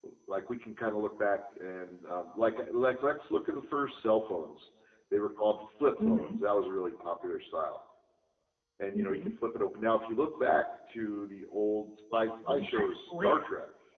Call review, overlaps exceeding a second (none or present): present